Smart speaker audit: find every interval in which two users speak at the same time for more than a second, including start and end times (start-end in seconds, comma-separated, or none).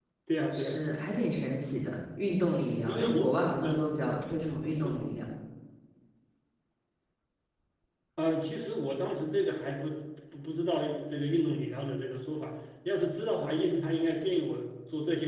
none